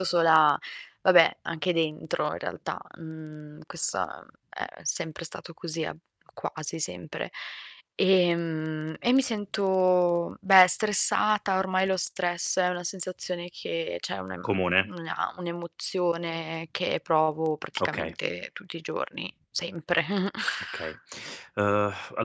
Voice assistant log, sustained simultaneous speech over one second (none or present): none